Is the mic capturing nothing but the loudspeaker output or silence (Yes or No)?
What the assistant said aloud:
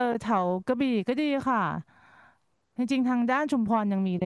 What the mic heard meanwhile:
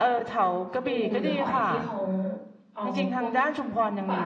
No